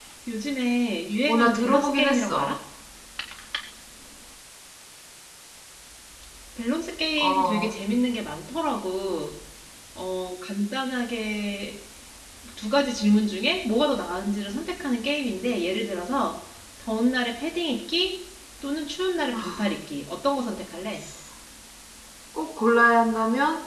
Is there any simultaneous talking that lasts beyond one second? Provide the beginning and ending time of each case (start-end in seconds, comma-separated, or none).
1.3-2.5